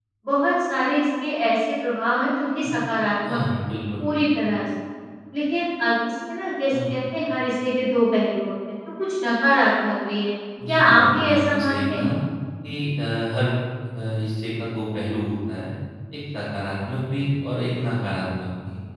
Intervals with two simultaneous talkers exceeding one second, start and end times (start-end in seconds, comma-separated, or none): 10.7-12.1